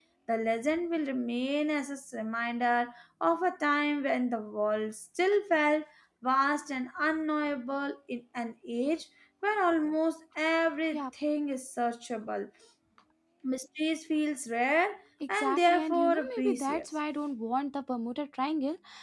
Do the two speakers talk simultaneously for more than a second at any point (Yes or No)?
Yes